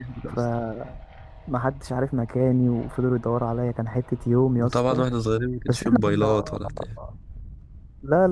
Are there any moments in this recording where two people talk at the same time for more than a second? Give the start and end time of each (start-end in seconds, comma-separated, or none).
5.7-6.9